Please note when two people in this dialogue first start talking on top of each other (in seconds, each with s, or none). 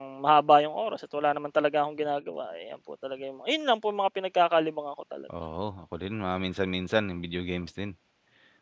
none